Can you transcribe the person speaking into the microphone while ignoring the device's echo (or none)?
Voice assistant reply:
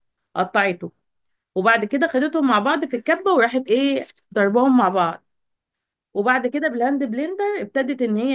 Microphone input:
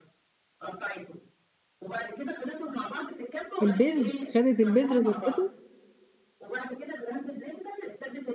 البذر خدت البذر ضربته